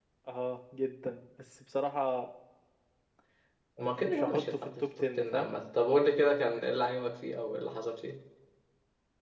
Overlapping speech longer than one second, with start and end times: 3.8-5.5

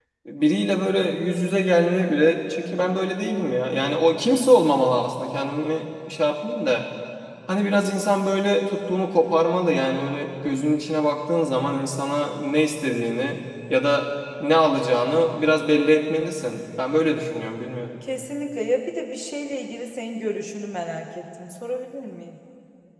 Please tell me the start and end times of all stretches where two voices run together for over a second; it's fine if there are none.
none

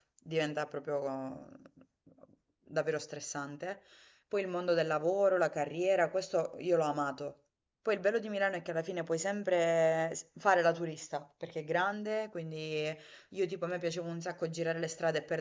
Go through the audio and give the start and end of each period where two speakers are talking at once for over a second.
none

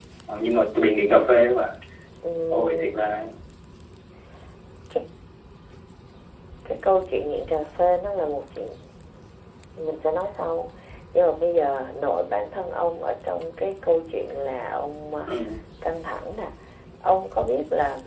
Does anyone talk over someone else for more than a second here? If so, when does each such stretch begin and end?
none

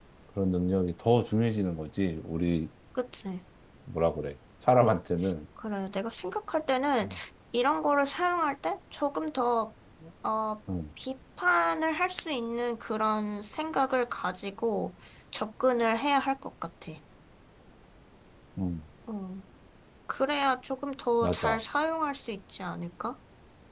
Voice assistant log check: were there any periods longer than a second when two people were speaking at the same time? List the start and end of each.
none

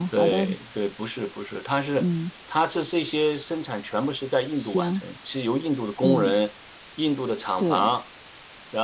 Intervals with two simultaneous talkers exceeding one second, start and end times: none

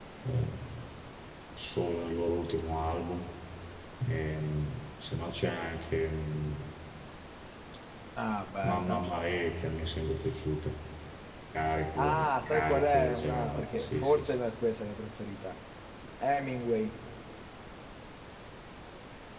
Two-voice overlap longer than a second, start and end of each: 12.0-14.3

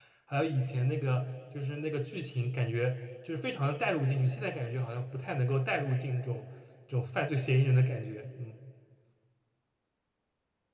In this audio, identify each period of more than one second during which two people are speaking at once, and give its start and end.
none

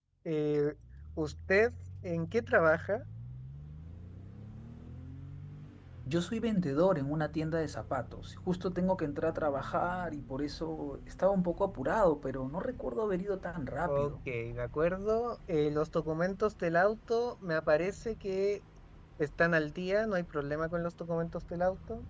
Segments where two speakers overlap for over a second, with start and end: none

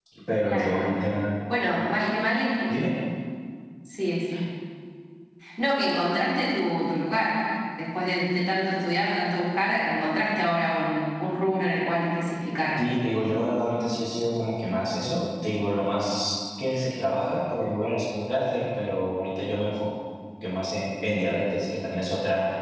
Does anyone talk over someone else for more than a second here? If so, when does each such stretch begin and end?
none

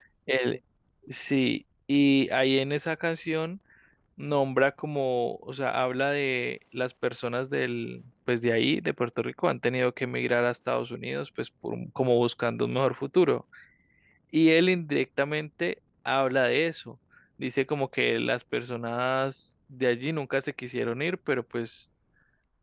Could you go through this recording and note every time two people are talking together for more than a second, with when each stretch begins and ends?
none

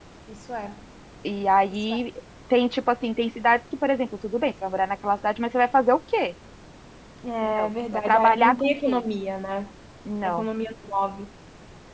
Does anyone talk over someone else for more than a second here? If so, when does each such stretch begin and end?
7.4-9.0

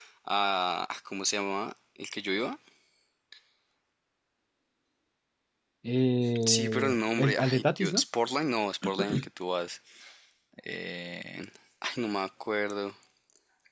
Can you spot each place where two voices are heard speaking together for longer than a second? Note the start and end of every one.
6.5-8.0

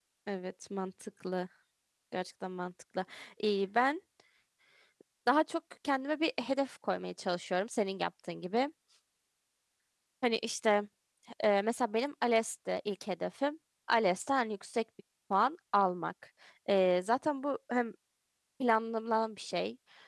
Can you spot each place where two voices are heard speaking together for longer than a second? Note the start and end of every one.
none

